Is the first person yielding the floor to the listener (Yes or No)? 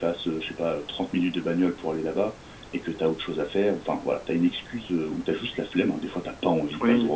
Yes